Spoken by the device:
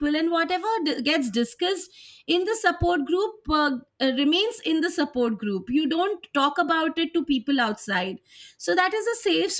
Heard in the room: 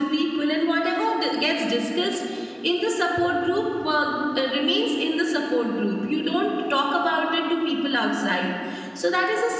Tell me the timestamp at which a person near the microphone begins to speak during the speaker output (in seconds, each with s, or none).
none